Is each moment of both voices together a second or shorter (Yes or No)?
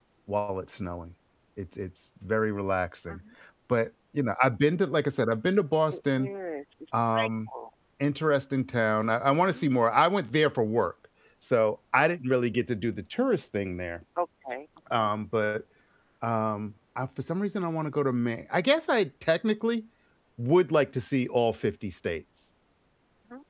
Yes